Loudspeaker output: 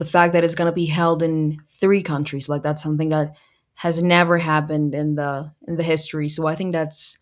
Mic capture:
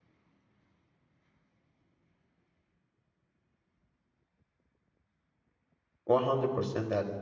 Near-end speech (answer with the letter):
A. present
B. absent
A